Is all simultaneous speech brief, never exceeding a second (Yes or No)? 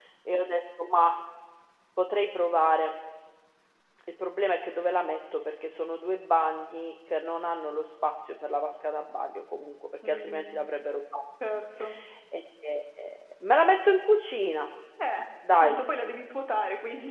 Yes